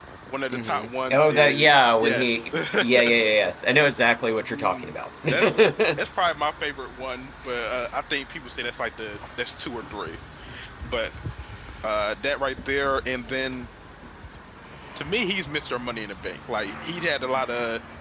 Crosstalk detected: Yes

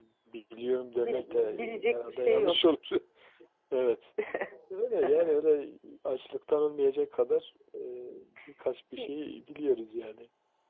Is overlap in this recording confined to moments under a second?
No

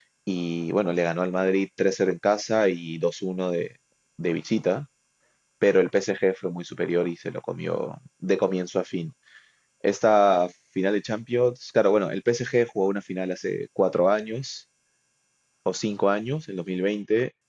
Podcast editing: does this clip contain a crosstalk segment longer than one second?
No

